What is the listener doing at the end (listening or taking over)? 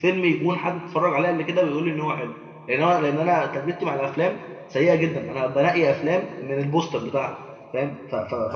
taking over